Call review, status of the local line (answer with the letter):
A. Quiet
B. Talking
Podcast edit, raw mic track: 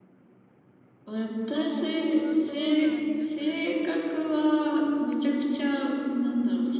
B